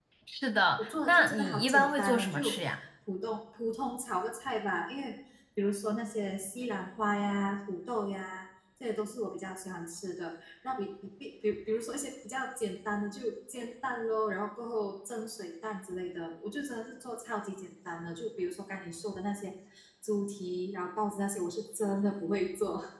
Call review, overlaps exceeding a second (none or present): present